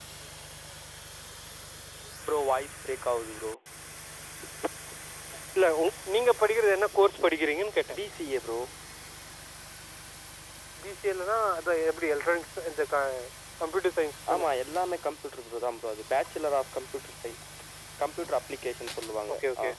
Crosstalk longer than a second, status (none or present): none